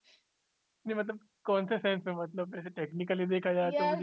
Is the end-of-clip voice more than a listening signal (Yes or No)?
Yes